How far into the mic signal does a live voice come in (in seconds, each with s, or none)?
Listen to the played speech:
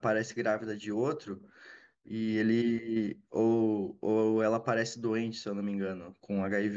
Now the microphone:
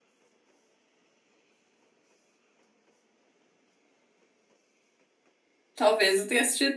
5.7 s